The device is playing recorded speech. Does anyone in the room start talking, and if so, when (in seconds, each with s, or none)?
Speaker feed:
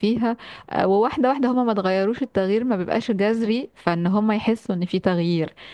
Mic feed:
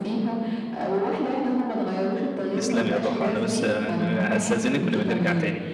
2.5 s